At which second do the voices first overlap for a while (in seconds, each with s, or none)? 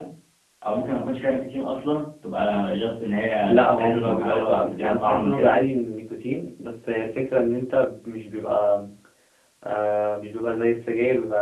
3.5 s